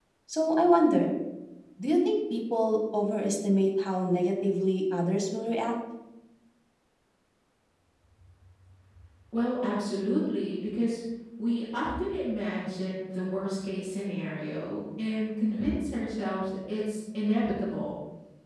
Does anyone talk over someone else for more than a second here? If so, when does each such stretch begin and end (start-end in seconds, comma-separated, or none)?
none